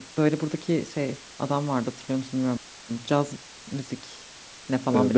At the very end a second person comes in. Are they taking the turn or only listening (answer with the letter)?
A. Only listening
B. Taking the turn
B